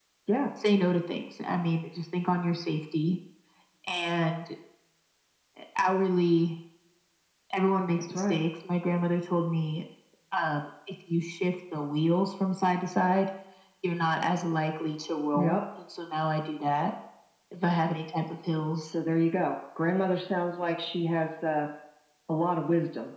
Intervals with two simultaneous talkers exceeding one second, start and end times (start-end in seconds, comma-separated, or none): none